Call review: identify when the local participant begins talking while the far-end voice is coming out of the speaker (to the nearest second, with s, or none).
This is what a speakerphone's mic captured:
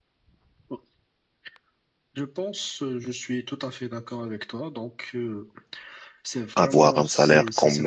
7 s